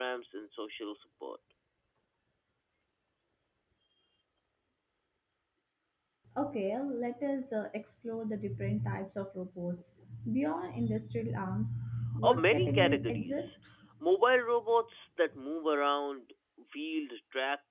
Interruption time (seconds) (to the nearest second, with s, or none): 12 s